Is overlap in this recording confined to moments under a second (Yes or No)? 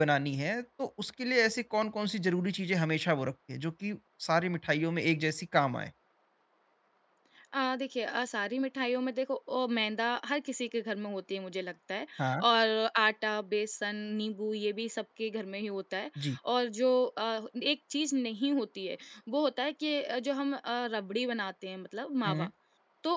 Yes